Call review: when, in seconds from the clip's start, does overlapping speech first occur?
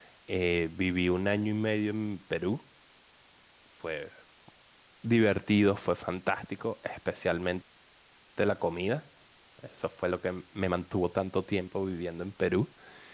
none

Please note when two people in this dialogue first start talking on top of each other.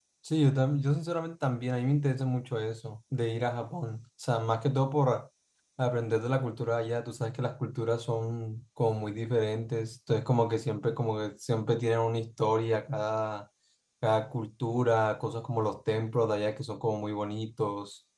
none

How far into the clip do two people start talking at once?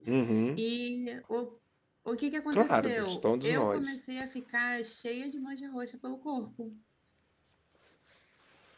2.5 s

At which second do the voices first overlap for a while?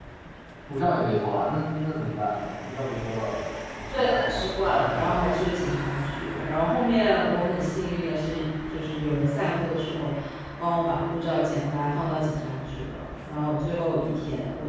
3.9 s

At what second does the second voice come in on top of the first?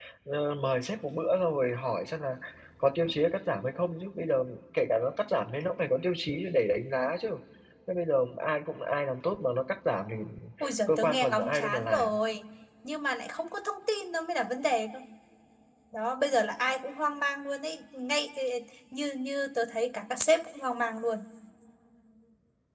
10.9 s

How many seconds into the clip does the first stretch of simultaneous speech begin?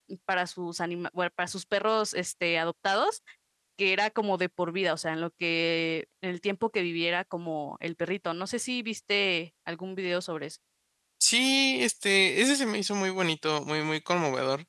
none

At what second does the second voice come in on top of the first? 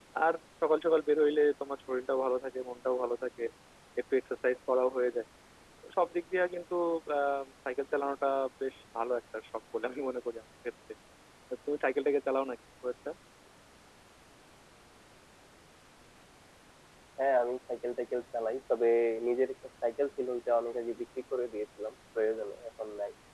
none

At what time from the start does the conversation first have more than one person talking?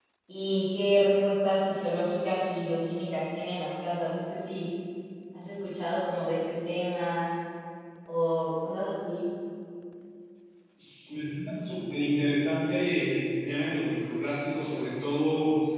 none

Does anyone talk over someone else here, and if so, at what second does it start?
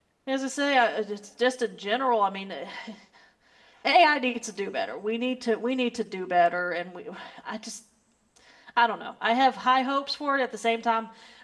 none

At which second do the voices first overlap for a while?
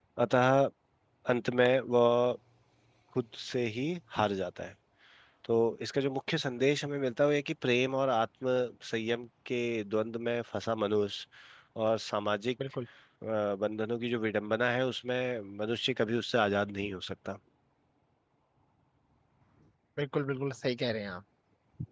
none

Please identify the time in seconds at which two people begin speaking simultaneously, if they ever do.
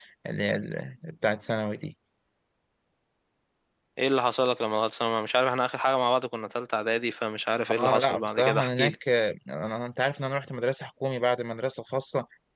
7.7 s

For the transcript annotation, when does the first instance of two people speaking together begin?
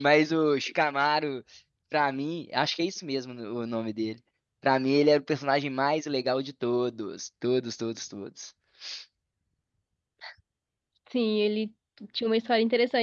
none

